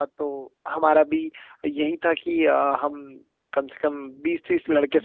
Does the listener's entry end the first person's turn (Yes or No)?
No